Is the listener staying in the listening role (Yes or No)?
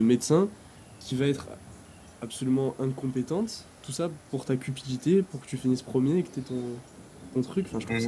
No